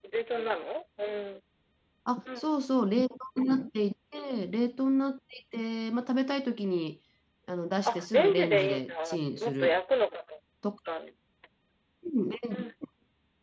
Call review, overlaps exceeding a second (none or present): present